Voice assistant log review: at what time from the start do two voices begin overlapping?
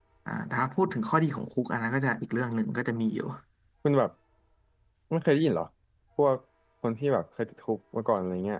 none

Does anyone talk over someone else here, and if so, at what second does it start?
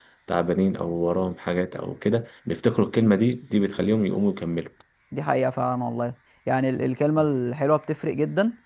none

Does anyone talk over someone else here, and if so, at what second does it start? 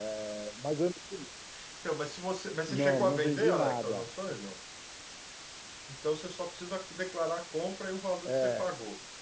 2.7 s

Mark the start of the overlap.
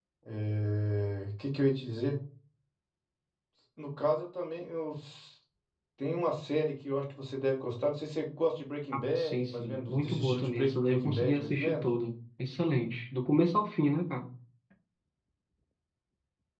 8.9 s

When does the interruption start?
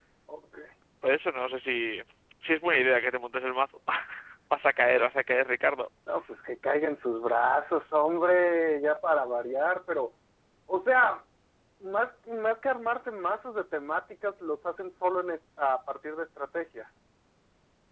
none

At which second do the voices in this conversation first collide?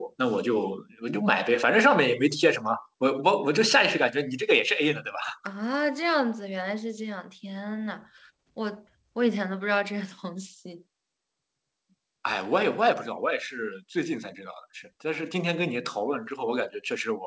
none

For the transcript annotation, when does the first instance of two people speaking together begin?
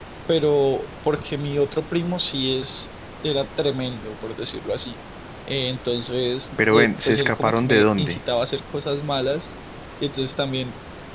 6.6 s

